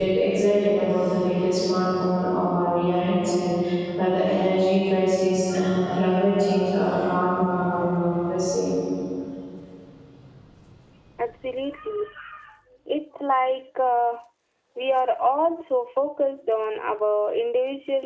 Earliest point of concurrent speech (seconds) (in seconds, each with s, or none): none